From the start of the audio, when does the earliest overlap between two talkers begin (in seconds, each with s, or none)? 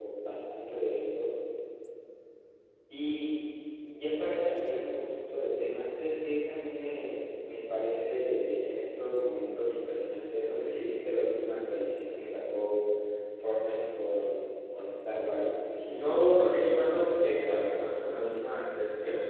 15.9 s